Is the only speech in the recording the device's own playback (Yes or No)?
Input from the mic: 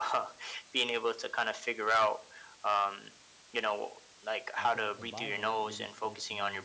No